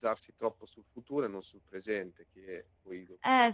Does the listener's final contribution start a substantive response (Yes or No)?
Yes